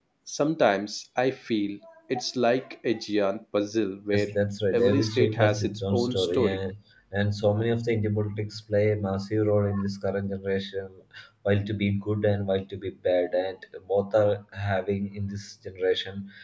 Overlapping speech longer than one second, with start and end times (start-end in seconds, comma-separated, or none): 4.7-6.6